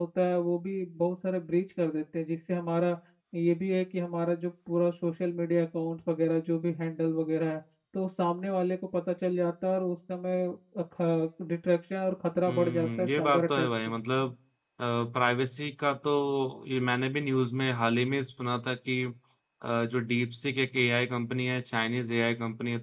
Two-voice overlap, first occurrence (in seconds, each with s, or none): 12.5 s